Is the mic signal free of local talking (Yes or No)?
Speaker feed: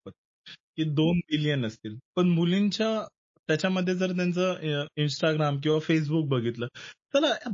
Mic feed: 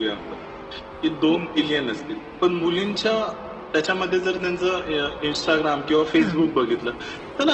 No